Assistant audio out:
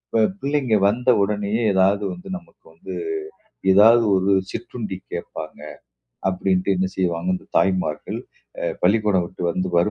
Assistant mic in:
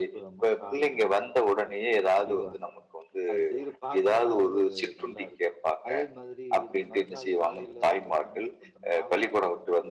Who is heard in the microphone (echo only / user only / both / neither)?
both